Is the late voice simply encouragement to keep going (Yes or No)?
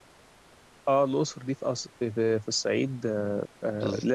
Yes